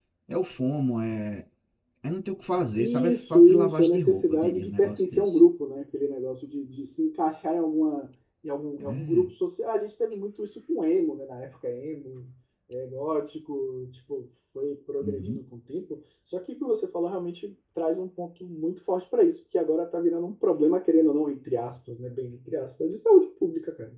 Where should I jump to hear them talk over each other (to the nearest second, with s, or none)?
3 s